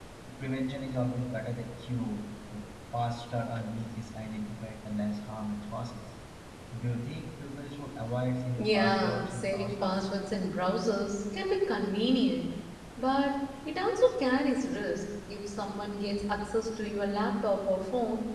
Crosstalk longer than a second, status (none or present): present